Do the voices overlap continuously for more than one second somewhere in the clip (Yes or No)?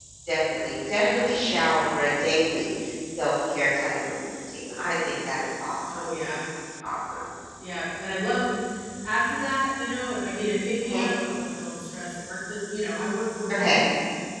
No